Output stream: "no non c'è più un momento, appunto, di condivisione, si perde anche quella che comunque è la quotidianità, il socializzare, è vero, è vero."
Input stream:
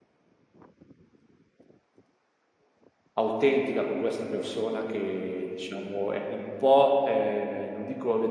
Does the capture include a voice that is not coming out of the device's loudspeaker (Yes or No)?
Yes